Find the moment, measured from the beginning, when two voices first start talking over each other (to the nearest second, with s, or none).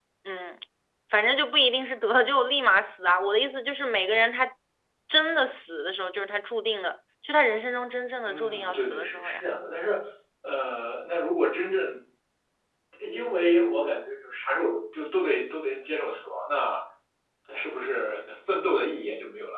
8 s